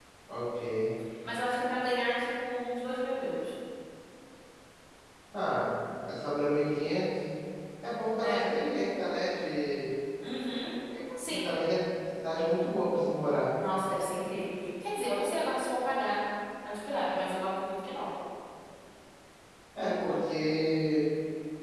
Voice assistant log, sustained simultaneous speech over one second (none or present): none